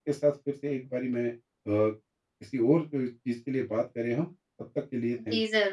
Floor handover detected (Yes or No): Yes